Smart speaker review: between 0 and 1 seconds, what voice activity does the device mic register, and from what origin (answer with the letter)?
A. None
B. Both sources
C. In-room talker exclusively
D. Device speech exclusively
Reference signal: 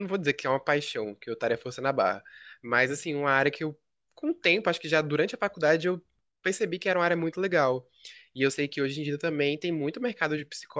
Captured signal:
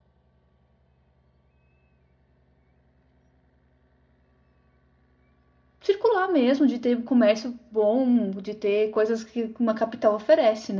A